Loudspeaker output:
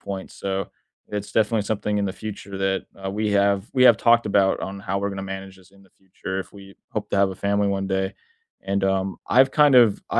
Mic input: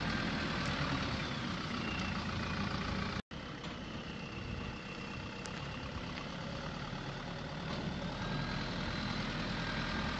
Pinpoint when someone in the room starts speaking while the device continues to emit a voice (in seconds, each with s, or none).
none